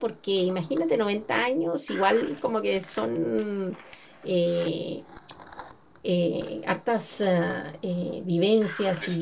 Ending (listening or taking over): listening